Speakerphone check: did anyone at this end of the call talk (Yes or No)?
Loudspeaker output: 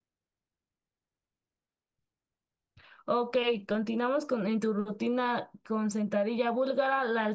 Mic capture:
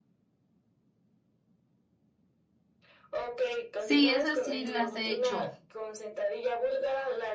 Yes